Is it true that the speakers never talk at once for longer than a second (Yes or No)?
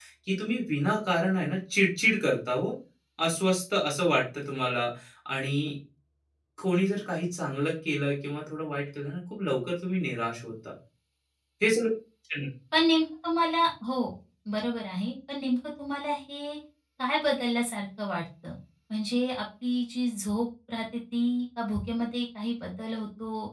Yes